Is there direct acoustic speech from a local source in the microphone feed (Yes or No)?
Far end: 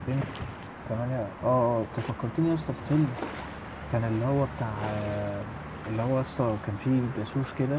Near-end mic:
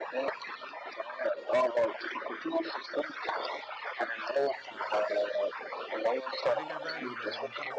Yes